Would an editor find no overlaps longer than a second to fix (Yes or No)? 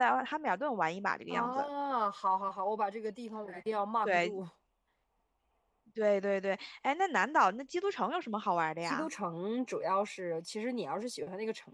Yes